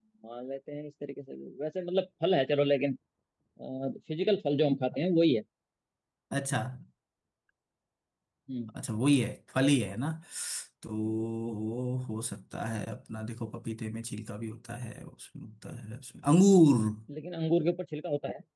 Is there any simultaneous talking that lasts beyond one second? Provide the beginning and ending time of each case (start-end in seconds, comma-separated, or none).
none